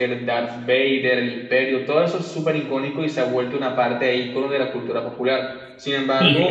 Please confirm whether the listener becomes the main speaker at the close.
Yes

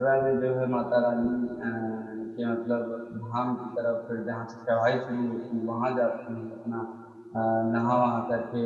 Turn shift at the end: No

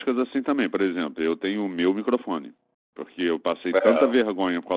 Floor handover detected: No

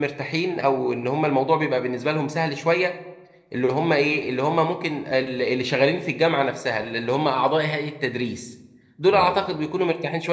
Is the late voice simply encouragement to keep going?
Yes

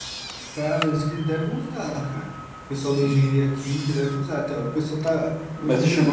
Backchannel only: No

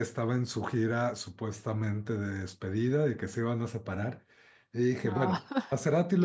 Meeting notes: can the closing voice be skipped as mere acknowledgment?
Yes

